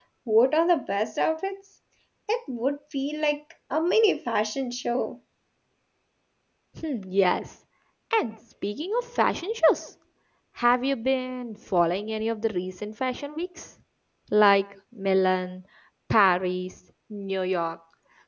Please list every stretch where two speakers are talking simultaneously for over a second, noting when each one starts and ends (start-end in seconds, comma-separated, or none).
none